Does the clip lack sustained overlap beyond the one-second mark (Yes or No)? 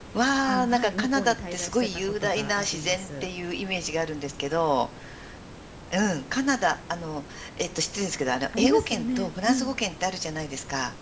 No